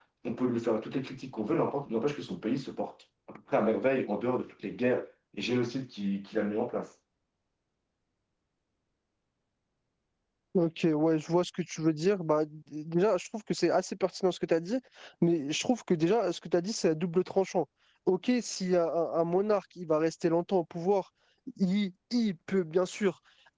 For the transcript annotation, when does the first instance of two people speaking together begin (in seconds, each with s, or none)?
none